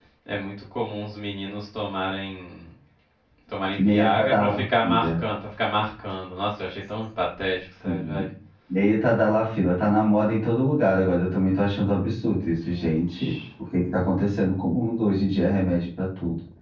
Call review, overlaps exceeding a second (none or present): present